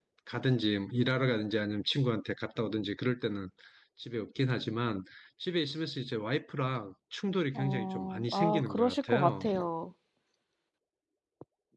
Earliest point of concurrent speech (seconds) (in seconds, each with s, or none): 7.5 s